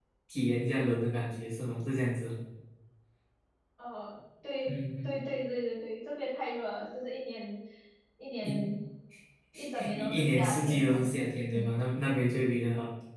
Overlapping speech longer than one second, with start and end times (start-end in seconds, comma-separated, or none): 9.8-11.1